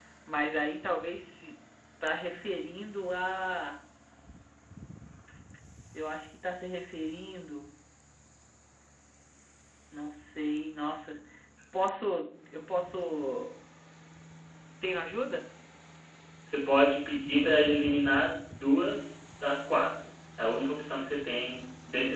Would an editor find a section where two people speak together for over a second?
No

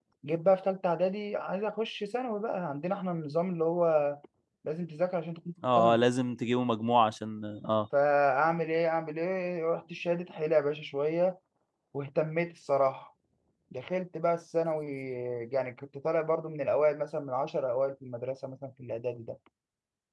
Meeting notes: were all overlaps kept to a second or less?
Yes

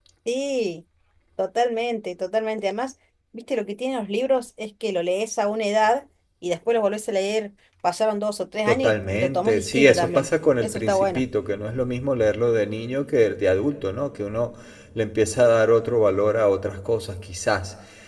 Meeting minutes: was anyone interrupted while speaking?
Yes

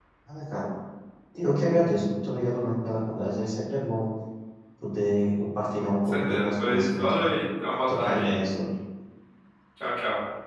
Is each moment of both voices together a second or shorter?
No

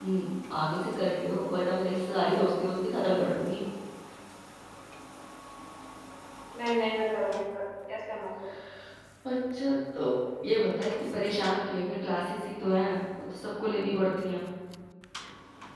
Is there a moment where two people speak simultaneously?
No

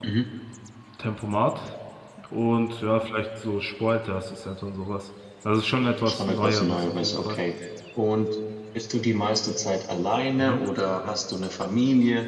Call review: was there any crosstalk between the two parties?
Yes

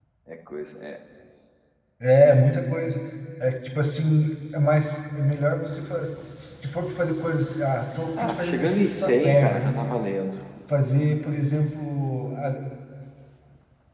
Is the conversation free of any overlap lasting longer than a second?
No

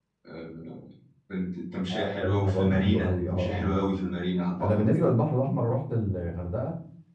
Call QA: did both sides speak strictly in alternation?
No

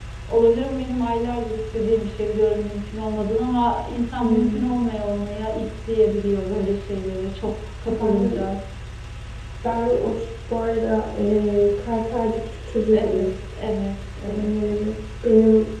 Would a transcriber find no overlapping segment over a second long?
Yes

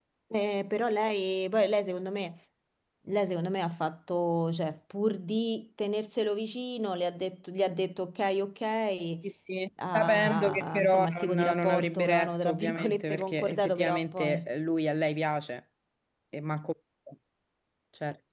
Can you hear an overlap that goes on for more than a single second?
Yes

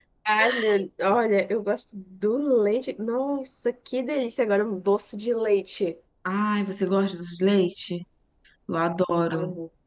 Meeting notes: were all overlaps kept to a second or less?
Yes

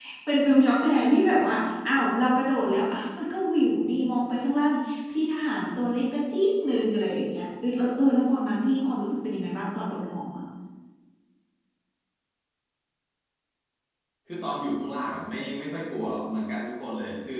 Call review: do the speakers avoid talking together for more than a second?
Yes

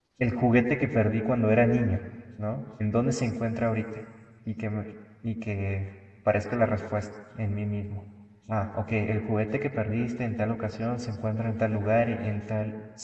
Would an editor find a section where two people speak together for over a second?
No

